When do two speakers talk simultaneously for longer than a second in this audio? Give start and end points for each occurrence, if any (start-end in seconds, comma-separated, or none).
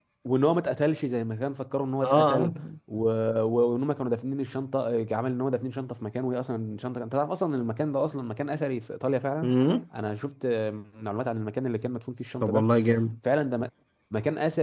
none